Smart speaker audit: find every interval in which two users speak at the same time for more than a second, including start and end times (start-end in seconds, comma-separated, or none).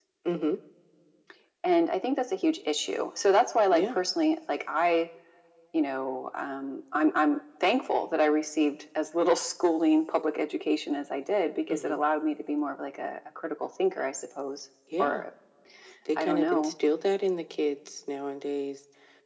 none